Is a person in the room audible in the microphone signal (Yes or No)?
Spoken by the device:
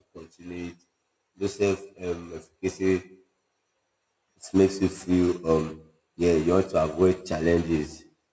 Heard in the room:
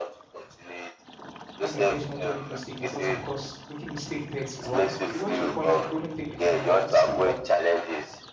Yes